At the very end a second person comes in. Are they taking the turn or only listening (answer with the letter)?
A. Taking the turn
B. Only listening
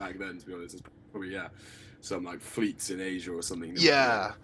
A